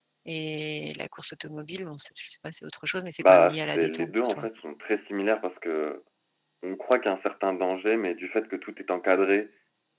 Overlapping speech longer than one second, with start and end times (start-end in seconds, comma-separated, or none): 3.2-4.5